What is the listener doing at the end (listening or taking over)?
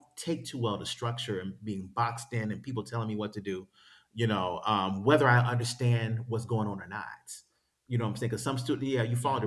listening